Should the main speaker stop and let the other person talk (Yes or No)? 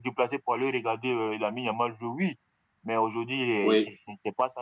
No